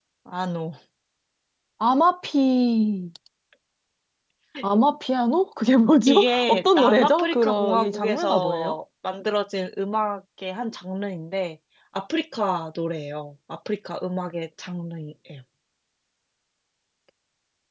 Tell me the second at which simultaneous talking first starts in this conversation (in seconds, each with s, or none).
6.1 s